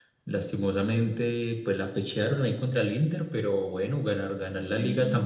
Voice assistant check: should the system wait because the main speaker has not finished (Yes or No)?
Yes